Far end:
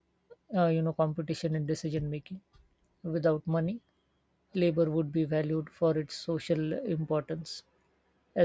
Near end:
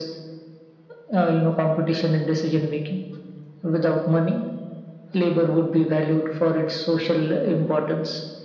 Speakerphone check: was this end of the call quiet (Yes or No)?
Yes